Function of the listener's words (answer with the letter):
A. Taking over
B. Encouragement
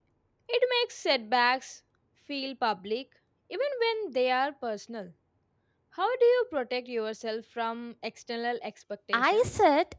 A